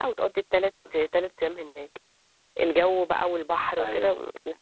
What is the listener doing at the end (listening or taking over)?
listening